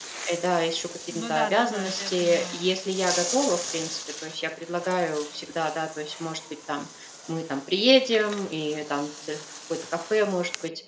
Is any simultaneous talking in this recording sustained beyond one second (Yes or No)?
Yes